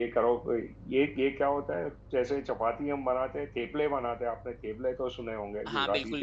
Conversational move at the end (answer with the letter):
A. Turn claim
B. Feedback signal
A